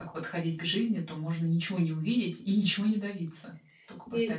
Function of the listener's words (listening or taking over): taking over